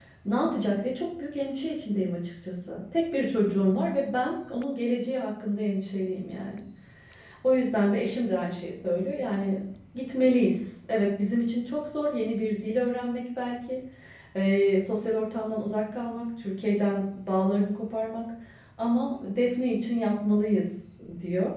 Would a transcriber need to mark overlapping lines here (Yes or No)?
No